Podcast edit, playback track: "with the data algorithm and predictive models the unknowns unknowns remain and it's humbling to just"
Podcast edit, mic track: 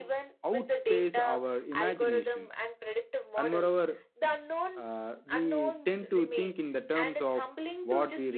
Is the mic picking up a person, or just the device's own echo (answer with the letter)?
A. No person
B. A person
B